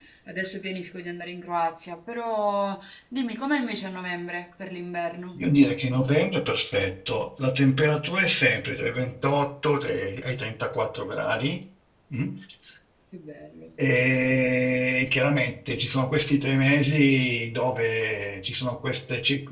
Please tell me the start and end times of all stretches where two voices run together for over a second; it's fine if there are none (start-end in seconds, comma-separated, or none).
none